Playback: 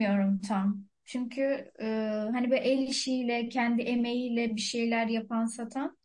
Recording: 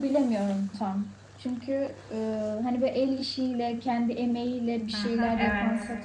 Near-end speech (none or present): present